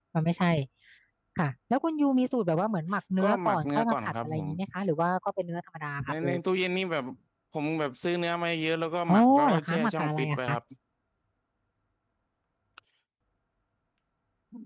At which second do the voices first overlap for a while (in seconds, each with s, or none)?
3.2 s